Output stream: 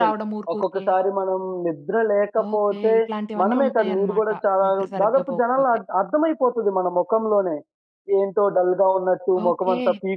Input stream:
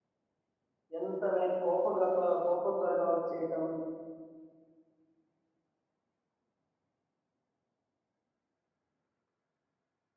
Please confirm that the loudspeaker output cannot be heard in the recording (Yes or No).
Yes